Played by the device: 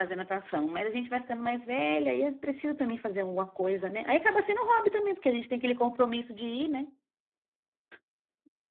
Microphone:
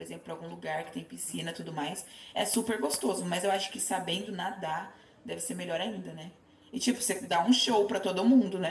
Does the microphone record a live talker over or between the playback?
Yes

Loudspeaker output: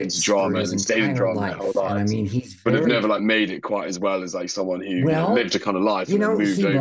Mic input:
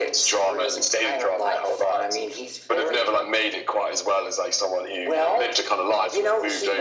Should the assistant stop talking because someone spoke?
No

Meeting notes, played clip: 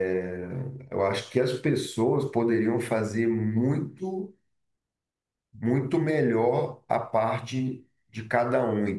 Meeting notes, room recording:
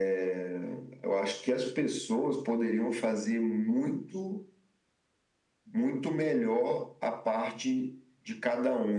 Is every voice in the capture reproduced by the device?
Yes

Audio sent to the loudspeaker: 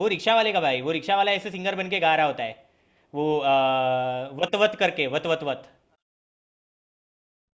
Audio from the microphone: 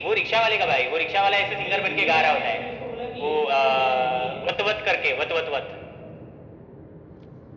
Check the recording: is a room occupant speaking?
Yes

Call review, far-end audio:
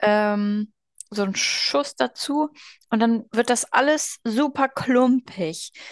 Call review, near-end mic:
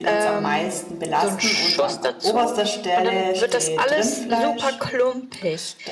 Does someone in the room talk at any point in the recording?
Yes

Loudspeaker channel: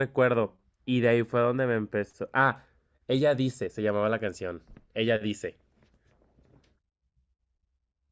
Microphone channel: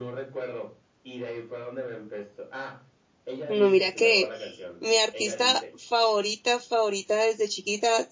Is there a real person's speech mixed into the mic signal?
Yes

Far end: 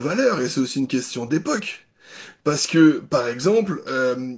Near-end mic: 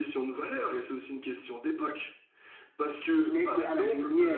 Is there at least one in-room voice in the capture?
Yes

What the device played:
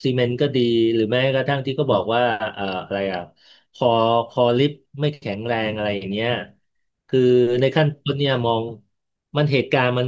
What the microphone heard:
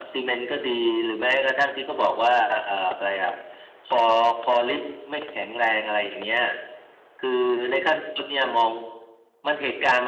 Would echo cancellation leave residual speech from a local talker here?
No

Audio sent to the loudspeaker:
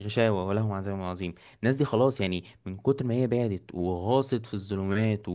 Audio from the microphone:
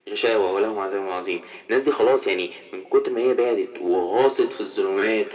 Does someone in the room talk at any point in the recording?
No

